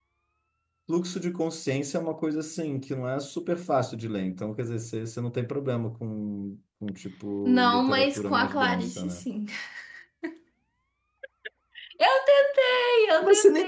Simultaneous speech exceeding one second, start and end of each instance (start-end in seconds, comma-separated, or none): 7.5-9.2